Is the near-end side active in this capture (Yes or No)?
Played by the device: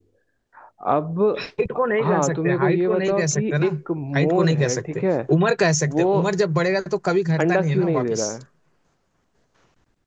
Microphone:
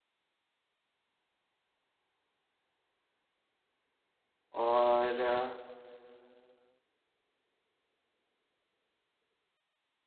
Yes